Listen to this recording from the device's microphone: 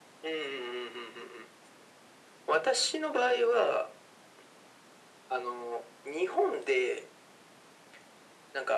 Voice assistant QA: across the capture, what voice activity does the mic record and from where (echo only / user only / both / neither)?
echo only